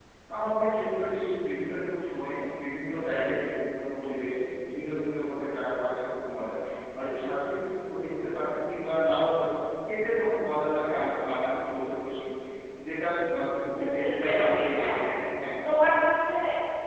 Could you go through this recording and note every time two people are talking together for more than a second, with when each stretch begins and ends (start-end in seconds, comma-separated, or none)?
13.7-14.9